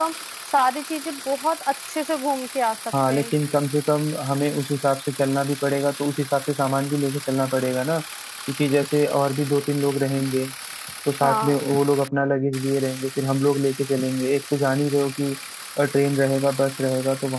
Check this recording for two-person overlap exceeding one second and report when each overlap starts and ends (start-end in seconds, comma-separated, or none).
none